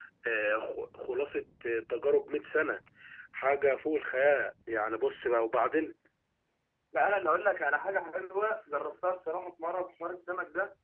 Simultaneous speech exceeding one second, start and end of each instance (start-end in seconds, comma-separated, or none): none